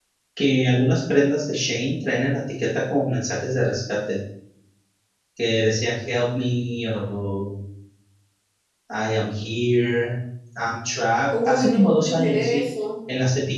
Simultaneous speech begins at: 11.3 s

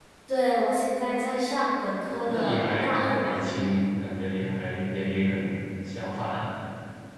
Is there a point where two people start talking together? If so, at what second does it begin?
2.1 s

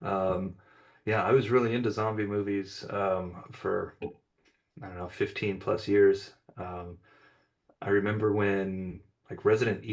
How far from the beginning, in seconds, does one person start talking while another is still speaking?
none

